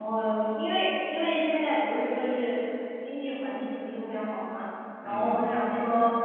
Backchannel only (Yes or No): Yes